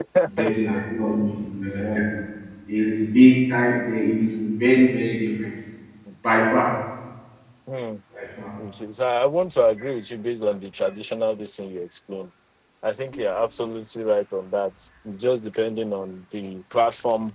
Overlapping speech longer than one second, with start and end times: none

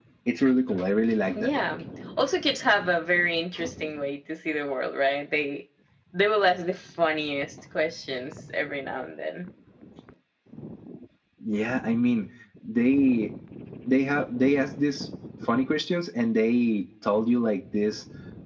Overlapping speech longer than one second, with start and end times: none

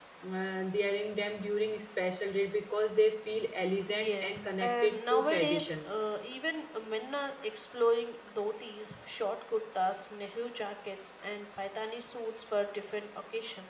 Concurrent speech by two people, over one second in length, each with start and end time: 3.9-5.8

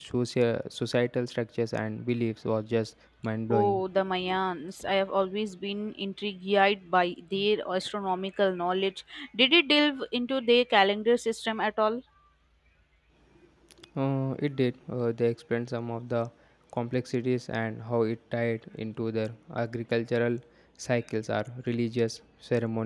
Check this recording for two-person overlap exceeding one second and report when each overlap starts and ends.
none

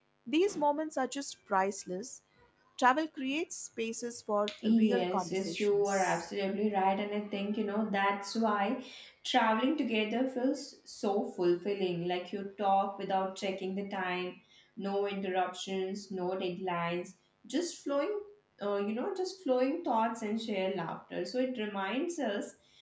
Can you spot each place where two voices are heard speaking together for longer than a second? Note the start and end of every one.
4.6-6.2

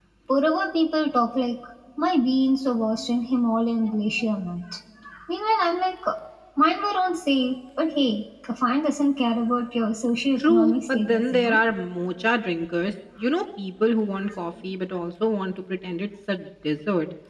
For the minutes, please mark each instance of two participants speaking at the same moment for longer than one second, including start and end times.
10.4-11.6

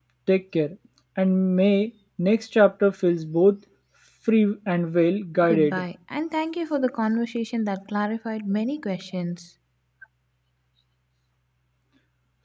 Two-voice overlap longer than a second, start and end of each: none

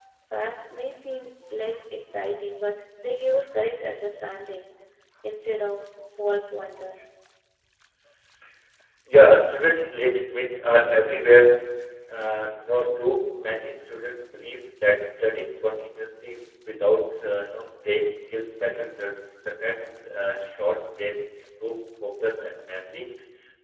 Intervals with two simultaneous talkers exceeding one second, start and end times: none

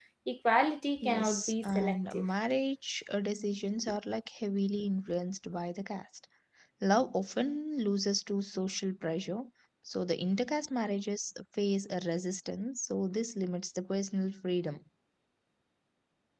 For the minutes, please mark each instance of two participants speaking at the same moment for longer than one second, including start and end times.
1.0-2.2

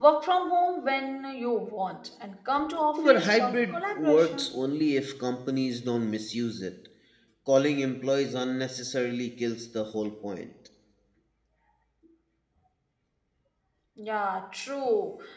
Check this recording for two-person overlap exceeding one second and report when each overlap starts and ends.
3.0-4.5

